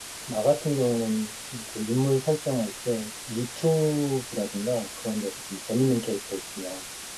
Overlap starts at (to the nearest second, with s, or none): none